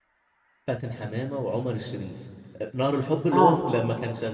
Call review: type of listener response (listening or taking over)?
listening